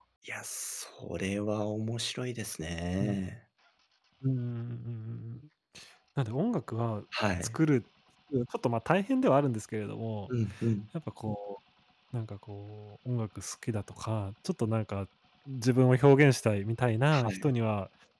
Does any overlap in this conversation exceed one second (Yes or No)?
No